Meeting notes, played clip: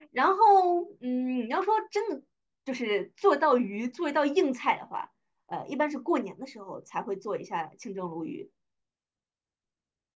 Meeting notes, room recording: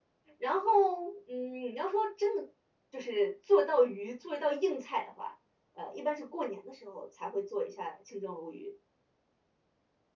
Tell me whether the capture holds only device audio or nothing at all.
Yes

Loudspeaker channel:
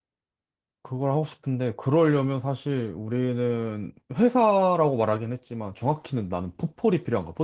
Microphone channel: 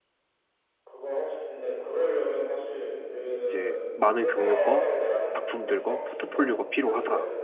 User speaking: Yes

